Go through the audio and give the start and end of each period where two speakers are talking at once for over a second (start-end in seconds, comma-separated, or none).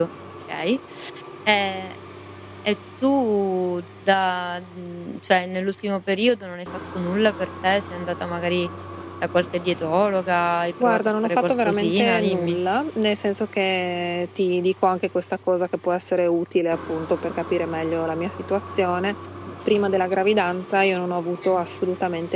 10.8-12.6